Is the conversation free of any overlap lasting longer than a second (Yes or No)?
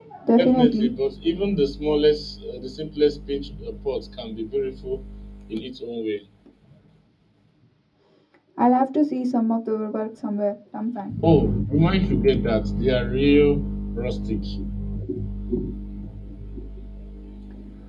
Yes